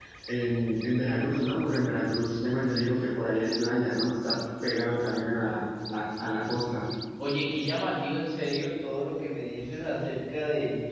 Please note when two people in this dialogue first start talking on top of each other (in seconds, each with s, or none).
none